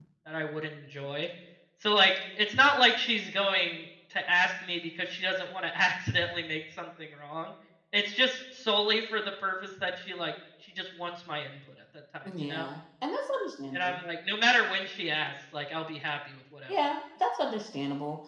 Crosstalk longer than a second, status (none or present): none